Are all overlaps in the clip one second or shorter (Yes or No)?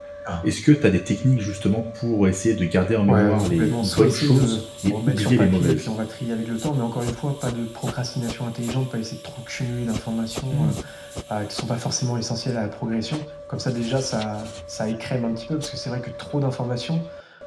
No